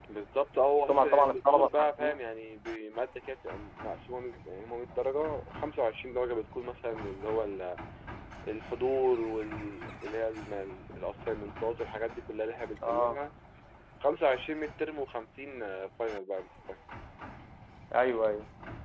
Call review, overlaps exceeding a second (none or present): present